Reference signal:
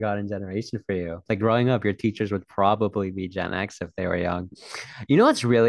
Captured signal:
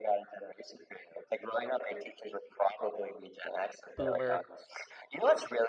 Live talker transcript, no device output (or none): boomer.